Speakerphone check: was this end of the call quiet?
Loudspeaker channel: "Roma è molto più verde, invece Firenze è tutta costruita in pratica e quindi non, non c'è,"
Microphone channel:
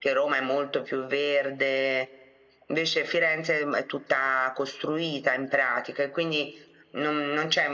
Yes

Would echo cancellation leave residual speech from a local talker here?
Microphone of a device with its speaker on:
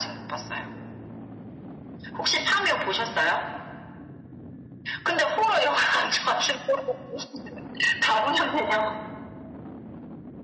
No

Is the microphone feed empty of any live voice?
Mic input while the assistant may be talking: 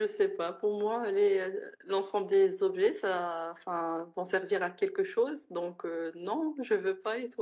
Yes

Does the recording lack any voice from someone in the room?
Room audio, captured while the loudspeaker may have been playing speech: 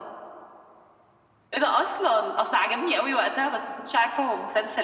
Yes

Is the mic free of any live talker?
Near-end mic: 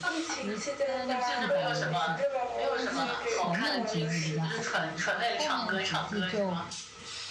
No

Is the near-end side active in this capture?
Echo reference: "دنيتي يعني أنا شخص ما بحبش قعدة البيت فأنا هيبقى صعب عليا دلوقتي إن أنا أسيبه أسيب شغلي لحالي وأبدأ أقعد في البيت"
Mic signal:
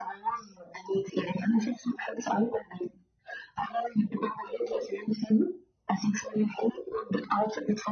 No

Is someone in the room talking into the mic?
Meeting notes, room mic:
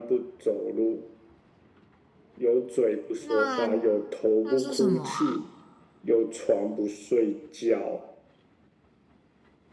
Yes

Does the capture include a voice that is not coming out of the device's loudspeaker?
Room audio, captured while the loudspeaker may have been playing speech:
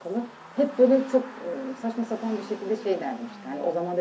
No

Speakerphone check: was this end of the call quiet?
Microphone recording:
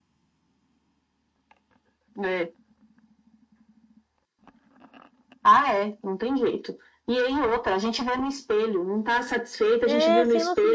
No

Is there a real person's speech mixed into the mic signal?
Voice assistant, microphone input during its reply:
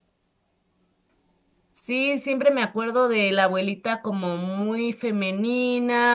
Yes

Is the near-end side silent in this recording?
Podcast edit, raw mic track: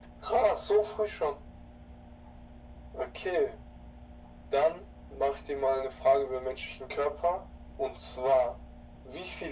Yes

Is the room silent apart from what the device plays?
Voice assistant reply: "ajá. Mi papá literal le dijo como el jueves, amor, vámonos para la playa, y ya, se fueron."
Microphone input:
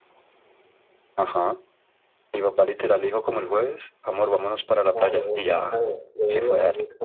No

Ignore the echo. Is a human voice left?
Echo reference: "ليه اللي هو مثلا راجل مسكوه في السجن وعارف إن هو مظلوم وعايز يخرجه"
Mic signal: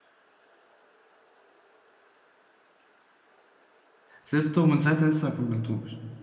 Yes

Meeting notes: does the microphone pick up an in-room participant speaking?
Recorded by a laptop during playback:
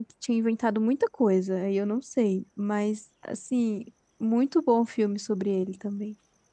Yes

